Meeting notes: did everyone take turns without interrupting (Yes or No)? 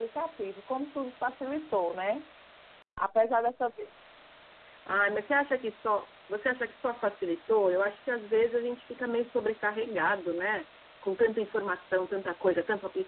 Yes